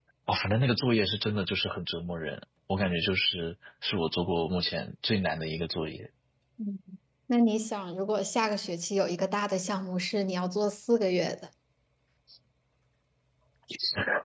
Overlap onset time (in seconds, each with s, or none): none